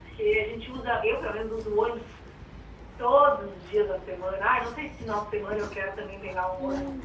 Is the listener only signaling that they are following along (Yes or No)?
No